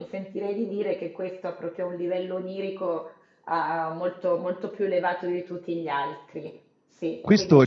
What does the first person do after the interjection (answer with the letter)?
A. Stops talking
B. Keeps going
A